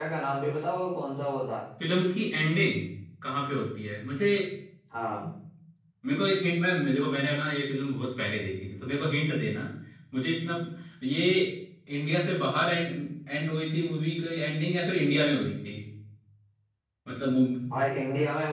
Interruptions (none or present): none